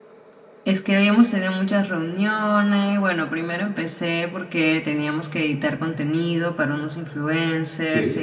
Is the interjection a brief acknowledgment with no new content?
Yes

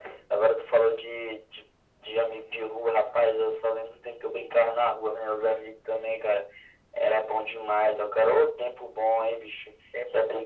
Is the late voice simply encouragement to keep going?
Yes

